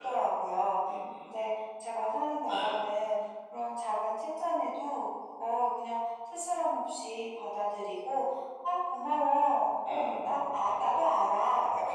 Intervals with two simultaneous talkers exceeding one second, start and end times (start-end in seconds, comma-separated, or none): 9.9-11.1